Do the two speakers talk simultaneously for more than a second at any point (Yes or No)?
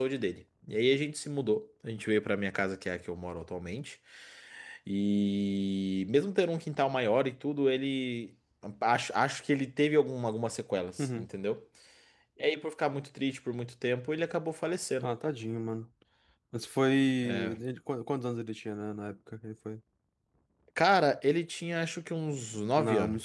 No